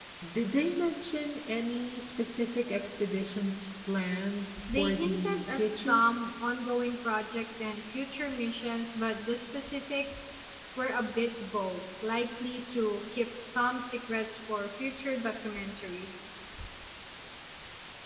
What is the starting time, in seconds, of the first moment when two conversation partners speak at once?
4.6 s

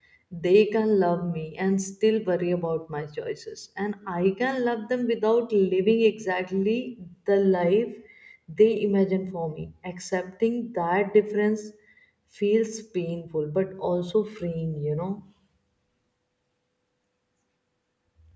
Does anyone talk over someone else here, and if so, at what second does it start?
none

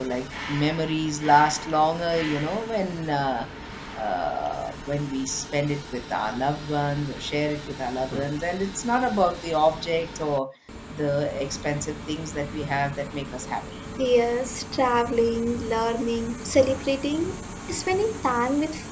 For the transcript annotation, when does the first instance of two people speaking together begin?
none

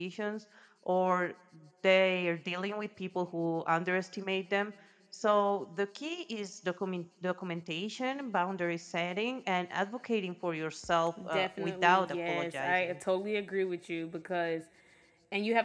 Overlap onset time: 11.3 s

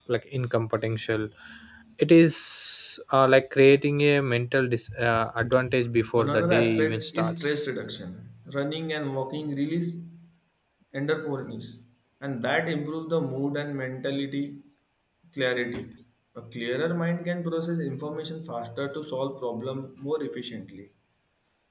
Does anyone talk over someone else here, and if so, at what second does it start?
6.2 s

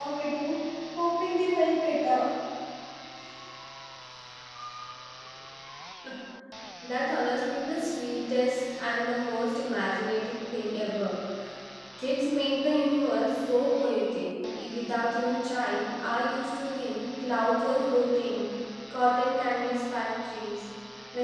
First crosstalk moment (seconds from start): none

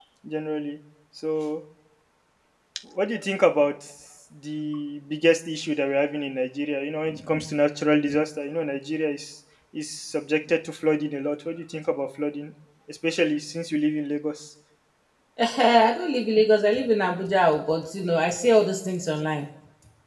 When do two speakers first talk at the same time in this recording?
none

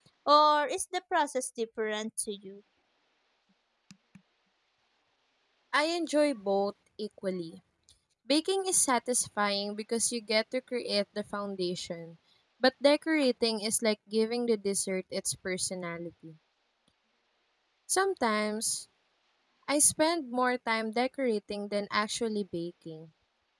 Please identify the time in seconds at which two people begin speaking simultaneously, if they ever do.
none

